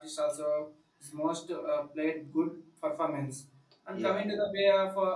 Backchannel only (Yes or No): Yes